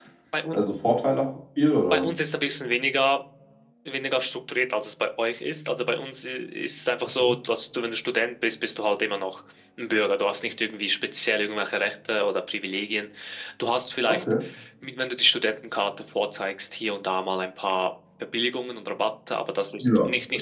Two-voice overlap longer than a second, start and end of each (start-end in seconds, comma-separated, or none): none